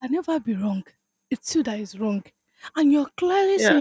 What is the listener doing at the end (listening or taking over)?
listening